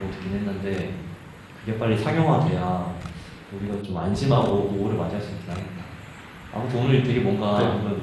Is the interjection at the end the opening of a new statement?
No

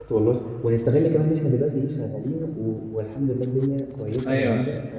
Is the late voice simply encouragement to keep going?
No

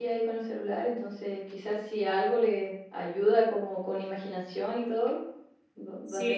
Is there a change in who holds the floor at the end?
Yes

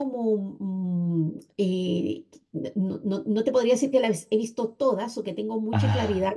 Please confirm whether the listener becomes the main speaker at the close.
No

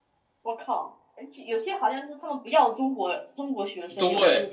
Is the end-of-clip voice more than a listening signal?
Yes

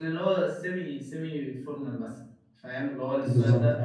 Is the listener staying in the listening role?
No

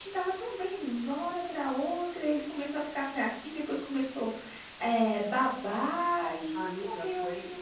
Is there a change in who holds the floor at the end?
Yes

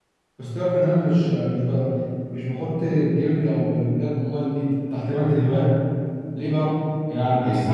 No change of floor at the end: Yes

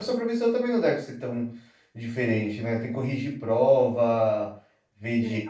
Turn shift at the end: No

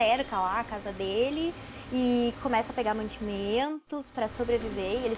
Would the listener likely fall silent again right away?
Yes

